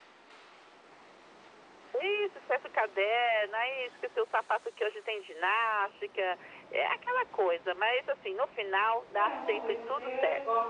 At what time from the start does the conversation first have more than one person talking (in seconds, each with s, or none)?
9.1 s